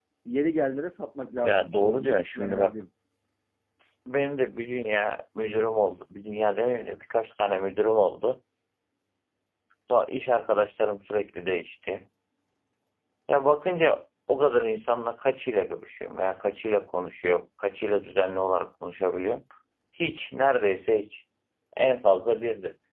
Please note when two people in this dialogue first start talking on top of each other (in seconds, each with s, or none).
1.4 s